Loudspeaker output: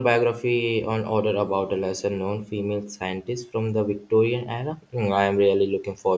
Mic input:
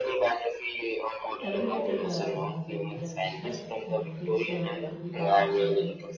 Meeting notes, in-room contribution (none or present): present